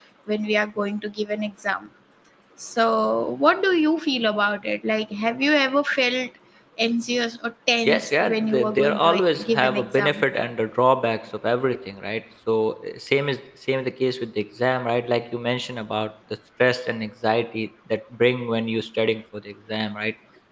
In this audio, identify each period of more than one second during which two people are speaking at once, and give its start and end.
7.8-10.2

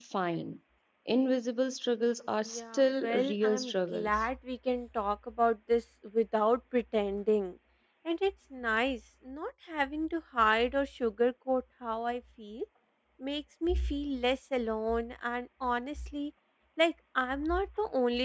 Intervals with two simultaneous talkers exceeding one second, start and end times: 2.4-4.1

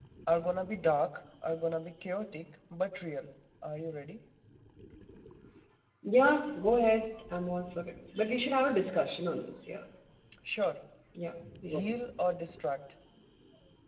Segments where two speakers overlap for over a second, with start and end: none

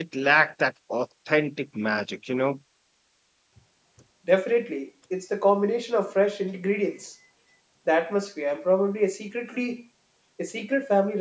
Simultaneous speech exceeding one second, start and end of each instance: none

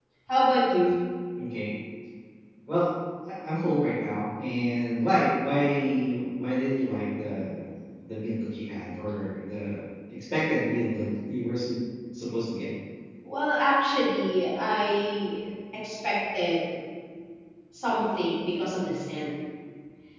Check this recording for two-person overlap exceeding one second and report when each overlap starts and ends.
none

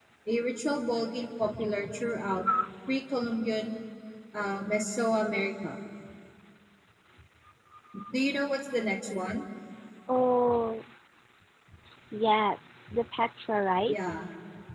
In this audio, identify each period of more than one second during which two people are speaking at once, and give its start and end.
none

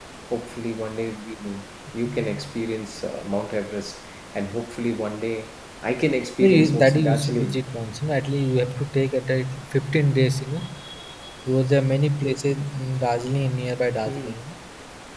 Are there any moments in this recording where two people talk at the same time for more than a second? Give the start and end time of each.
6.4-7.6

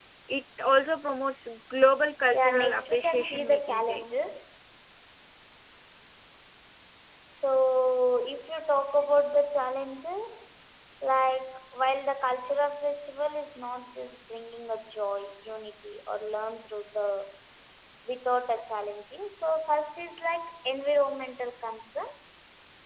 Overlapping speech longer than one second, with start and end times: 2.3-4.0

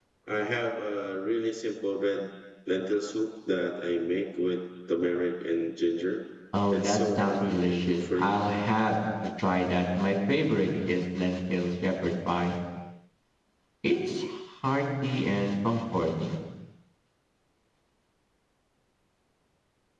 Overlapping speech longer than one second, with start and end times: 6.7-8.4

